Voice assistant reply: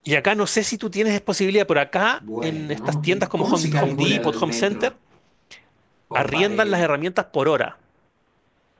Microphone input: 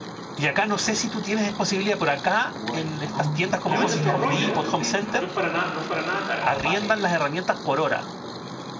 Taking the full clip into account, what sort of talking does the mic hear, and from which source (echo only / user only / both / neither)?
both